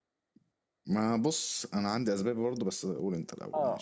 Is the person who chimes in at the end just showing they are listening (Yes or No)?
No